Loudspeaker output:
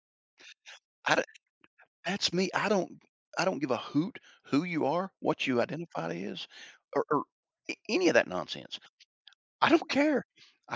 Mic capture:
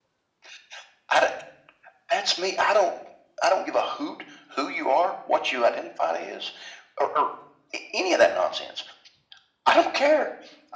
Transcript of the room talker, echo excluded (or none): none